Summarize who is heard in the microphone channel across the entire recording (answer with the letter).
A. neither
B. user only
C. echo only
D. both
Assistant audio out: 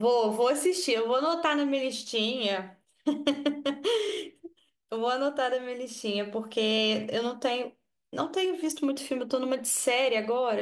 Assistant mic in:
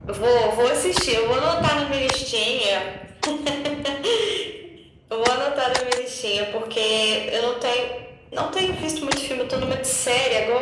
C